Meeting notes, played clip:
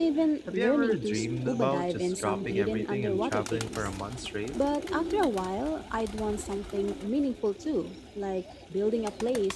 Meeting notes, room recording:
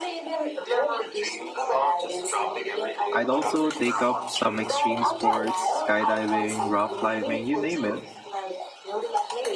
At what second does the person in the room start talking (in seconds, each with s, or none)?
3.1 s